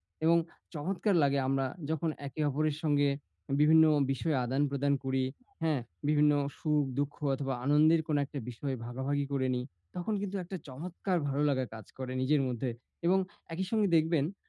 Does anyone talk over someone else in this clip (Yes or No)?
No